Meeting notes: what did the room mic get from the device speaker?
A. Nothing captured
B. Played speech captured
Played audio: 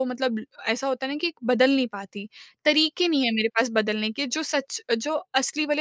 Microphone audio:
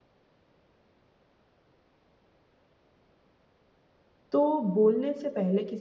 A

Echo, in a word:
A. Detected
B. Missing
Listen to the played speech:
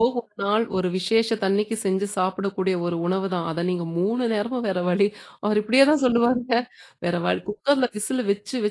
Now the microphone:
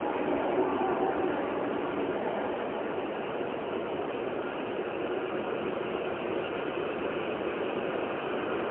B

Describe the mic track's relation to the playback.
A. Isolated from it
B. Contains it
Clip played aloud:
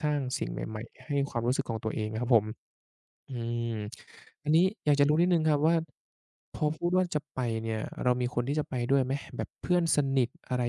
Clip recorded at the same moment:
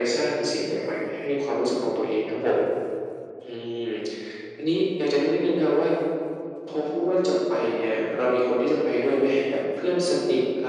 B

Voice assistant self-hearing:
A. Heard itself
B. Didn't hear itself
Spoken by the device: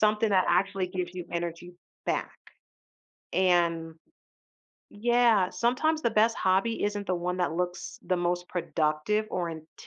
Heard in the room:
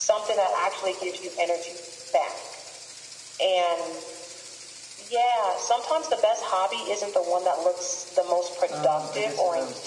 A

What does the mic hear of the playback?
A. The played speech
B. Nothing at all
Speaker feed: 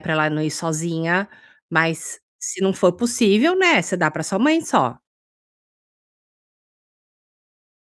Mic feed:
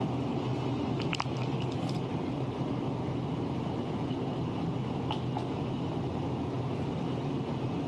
B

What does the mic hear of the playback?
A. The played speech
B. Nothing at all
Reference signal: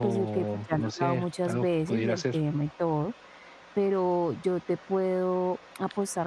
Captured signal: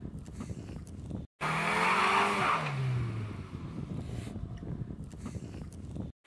B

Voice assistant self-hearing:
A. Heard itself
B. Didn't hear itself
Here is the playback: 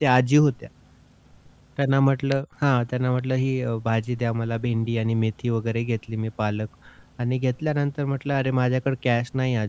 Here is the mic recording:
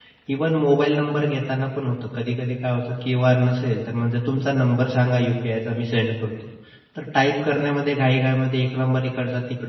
B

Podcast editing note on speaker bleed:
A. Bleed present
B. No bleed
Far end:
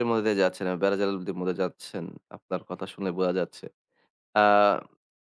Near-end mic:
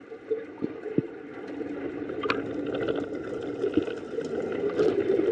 B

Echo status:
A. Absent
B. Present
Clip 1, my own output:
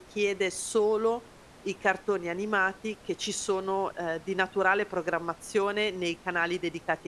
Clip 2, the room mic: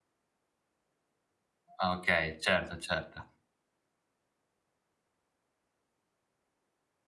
A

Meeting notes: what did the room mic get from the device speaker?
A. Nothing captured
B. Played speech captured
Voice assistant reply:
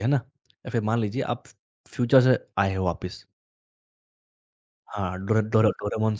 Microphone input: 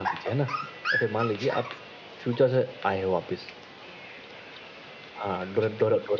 B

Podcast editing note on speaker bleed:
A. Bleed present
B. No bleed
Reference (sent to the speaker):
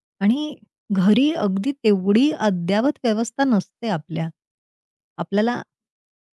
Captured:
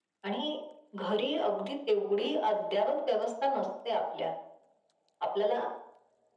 A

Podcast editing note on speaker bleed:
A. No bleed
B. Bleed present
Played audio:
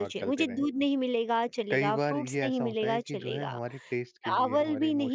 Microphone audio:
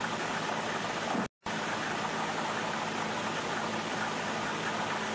A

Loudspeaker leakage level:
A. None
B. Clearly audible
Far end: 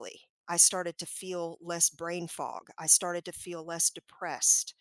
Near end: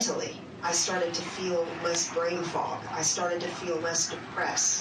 B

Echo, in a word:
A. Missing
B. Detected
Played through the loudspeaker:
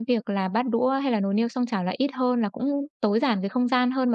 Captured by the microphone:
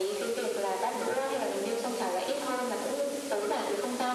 B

